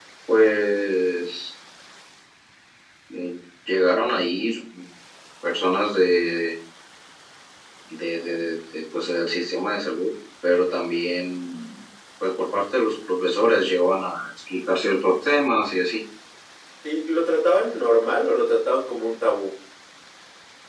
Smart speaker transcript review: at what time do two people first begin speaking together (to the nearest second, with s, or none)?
none